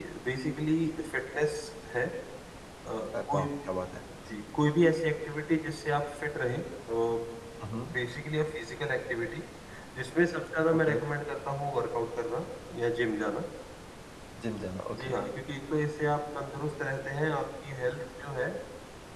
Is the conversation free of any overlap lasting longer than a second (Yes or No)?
Yes